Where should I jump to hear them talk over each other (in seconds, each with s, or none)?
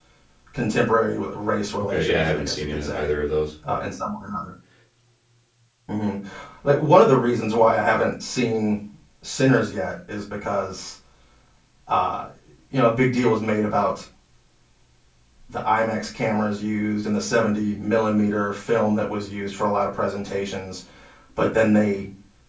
1.8 s